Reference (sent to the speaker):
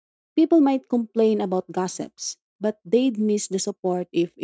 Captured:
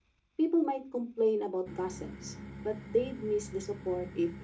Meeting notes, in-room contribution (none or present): none